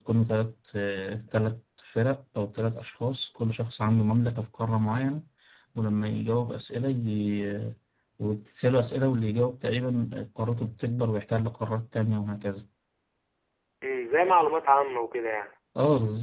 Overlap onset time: none

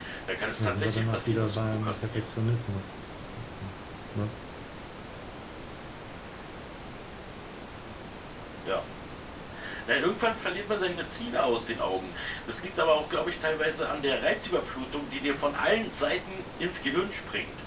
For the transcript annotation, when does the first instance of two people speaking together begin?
0.6 s

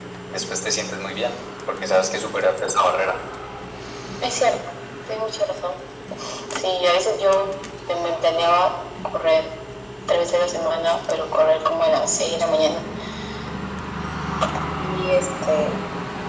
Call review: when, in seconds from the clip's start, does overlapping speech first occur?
none

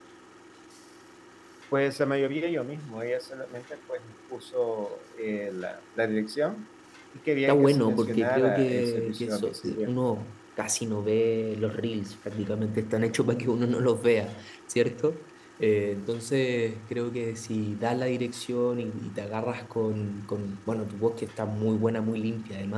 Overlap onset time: 7.5 s

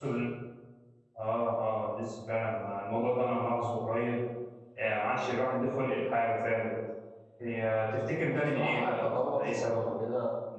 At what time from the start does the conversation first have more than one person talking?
8.2 s

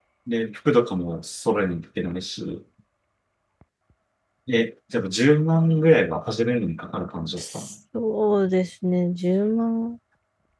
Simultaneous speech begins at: none

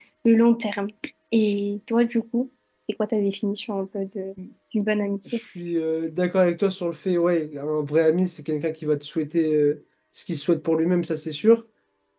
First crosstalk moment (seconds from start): none

